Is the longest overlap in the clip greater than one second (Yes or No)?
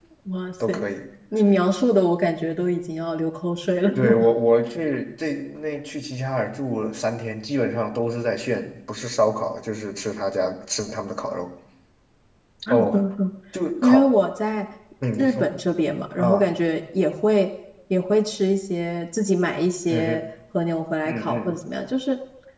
No